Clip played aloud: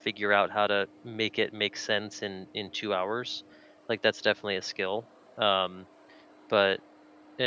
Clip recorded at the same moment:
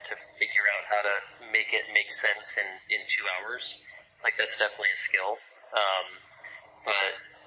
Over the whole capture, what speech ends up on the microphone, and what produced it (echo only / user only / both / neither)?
echo only